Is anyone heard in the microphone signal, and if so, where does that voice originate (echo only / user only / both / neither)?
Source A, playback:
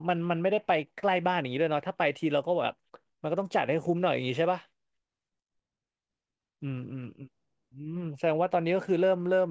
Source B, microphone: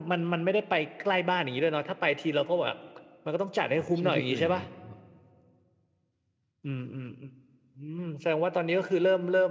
both